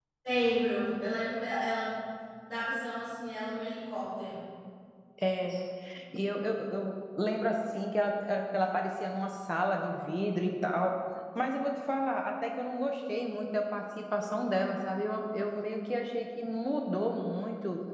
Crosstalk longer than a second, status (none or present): none